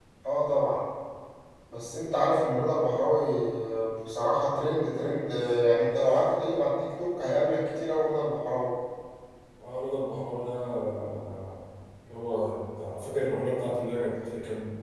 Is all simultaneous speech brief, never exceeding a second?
Yes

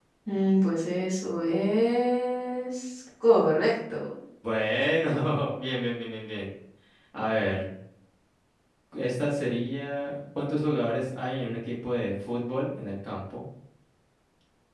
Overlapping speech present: No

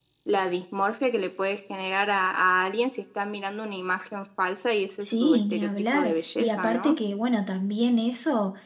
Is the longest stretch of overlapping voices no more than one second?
No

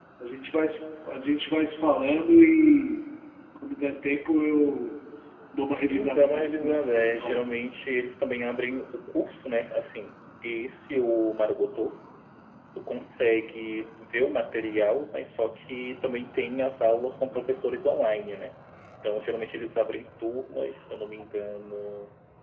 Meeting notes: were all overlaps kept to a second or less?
No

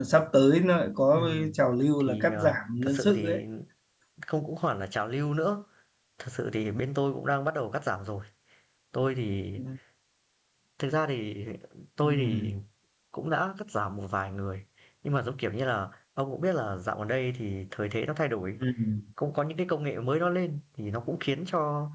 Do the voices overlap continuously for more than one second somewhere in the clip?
Yes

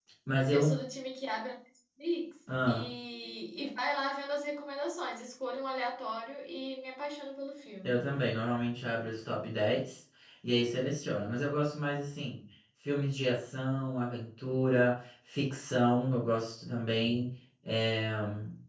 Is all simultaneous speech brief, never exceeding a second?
Yes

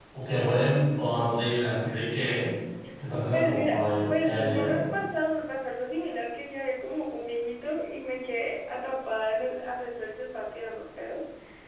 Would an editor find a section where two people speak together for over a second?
Yes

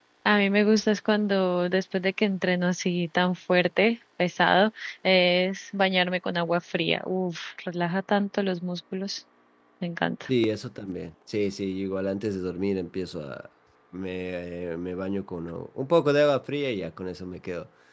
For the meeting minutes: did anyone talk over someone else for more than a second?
No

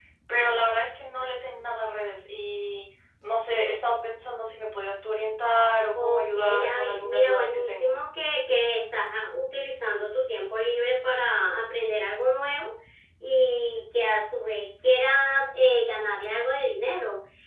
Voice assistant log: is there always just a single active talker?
No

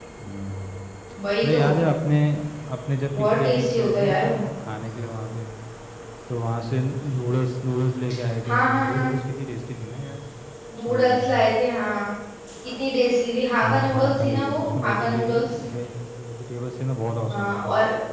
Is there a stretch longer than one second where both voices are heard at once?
Yes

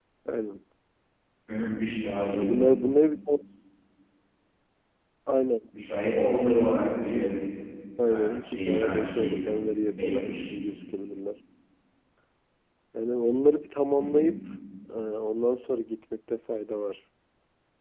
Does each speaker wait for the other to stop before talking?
No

